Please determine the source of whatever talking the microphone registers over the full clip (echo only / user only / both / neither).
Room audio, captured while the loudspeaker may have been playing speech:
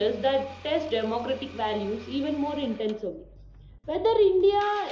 echo only